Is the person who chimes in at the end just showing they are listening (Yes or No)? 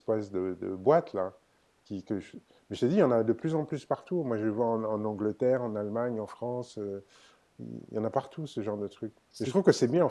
Yes